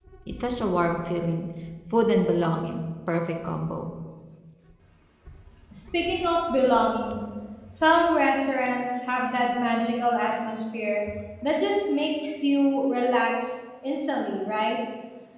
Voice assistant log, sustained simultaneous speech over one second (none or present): none